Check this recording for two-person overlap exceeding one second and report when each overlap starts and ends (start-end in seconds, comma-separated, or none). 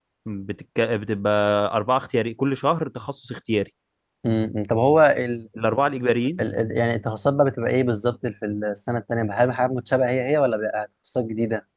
none